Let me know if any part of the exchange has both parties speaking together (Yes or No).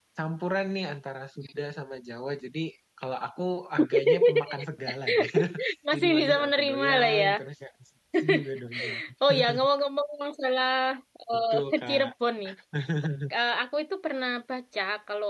Yes